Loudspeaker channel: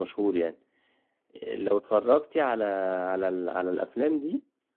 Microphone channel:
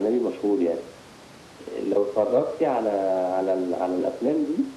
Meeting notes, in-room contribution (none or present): none